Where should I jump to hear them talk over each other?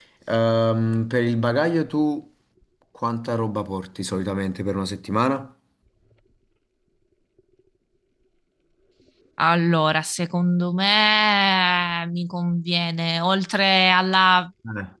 none

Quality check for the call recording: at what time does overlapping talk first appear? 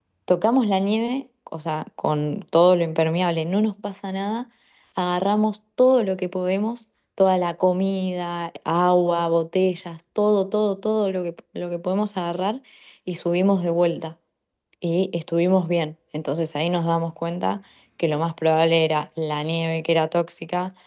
none

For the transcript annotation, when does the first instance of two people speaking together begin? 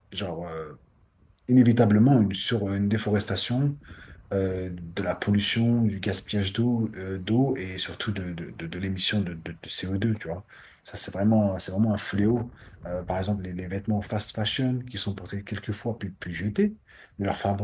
none

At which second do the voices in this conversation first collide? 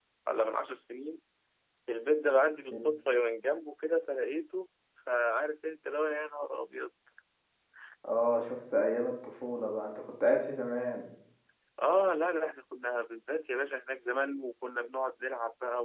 none

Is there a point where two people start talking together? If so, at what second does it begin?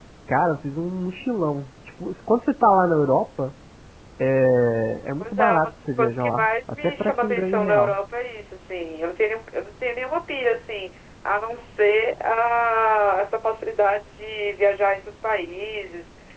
5.2 s

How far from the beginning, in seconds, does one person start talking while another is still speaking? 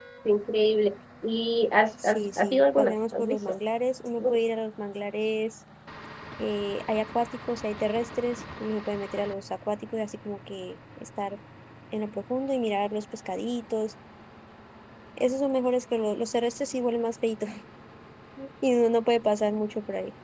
2.0 s

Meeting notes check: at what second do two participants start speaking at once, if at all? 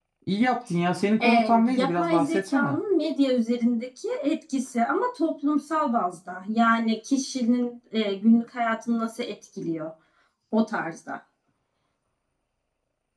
1.2 s

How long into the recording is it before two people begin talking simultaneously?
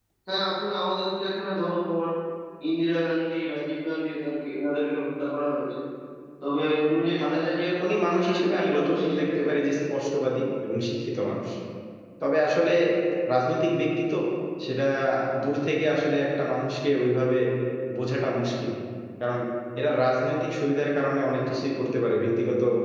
7.8 s

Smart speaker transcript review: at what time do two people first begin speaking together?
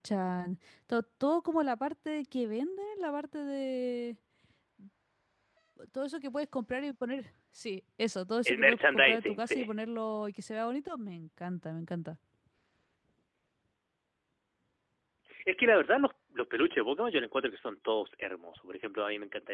8.4 s

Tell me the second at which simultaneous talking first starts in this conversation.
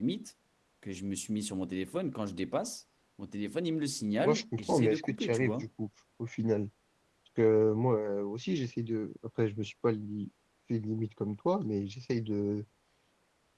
4.2 s

